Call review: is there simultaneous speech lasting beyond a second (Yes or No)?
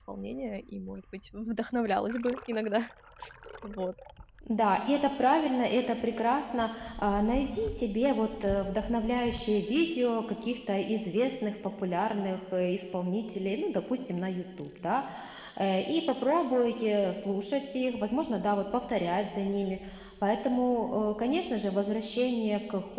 No